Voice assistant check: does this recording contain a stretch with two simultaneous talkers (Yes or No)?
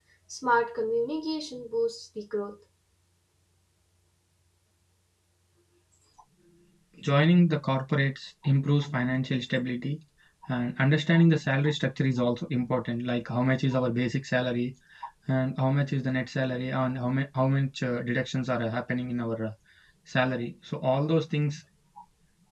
No